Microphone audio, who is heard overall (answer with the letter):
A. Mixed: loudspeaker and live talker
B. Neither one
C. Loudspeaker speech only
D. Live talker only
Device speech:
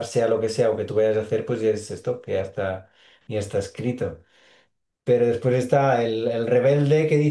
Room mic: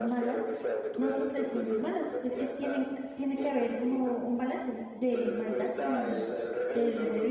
A